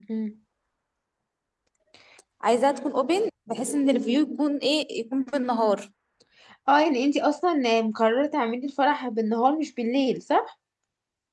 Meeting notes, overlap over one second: none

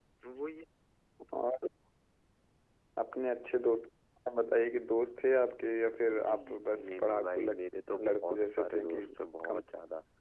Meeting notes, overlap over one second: present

